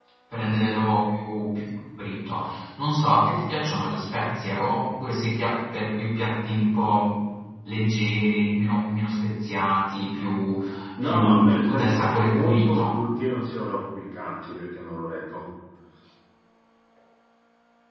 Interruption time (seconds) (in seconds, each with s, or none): 11.0 s